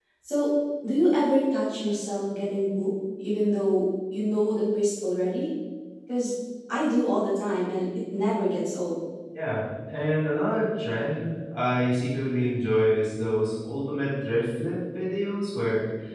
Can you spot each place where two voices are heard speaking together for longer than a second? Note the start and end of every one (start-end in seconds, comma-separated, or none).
none